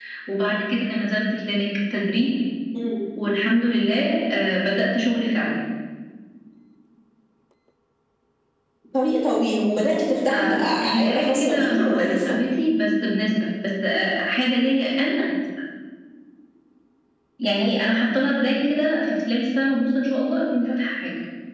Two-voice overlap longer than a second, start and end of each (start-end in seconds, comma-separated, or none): 10.3-12.4